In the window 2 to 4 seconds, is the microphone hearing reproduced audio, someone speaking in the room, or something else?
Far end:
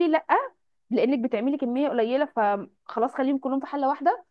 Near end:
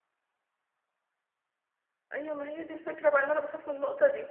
user only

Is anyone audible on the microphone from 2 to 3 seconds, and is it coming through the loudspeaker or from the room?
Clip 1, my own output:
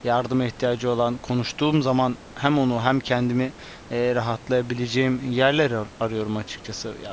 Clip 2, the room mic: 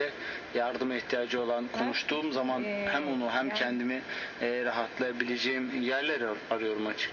both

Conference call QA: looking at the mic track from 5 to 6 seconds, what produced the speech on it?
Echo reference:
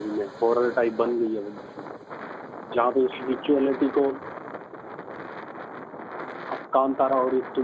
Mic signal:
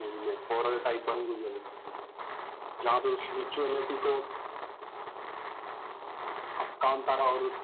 neither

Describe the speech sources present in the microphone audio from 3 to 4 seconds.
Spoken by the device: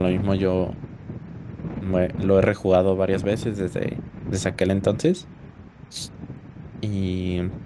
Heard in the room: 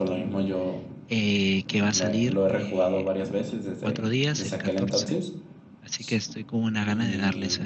both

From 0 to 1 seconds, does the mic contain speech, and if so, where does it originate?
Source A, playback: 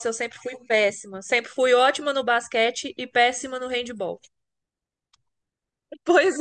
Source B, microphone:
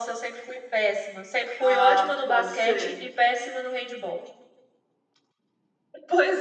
echo only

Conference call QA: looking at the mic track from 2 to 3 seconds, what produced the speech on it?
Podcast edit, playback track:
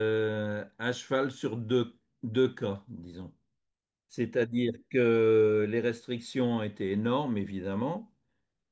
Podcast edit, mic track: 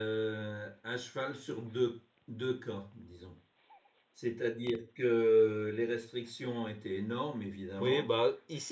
echo only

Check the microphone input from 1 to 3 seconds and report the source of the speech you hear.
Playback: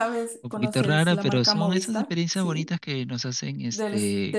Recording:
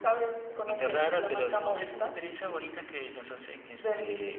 echo only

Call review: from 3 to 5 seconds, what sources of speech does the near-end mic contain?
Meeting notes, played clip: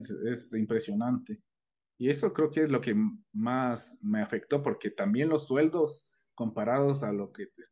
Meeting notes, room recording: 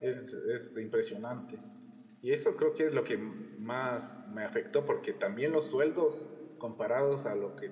echo only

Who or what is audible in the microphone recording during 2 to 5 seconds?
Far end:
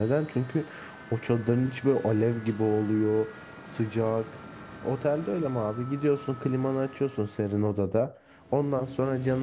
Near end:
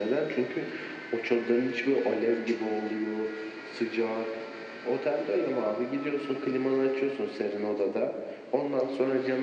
echo only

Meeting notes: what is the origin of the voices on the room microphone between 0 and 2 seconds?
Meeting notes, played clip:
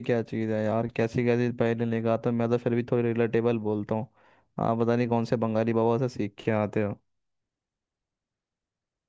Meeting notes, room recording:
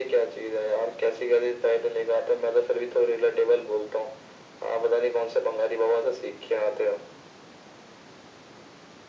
echo only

